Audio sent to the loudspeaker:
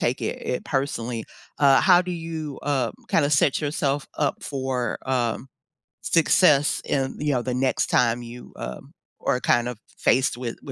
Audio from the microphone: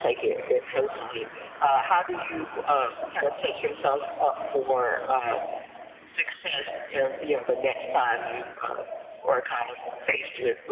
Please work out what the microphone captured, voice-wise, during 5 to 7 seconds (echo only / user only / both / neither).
echo only